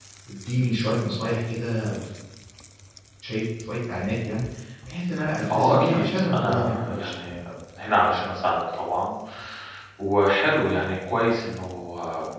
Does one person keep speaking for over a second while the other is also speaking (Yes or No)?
Yes